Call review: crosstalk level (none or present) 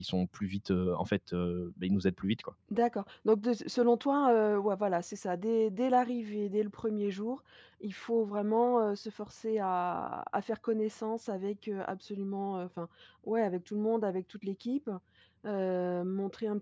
none